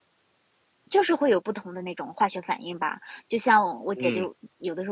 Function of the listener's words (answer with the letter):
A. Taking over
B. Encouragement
B